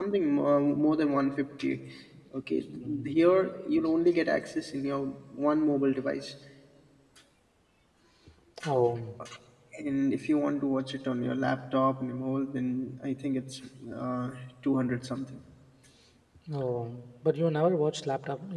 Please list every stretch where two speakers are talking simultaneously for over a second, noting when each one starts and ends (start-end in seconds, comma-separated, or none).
none